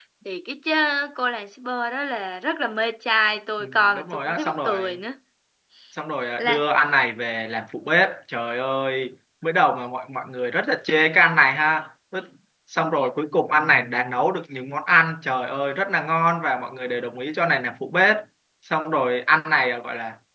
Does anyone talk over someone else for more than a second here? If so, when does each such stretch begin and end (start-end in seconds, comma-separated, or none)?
3.6-5.0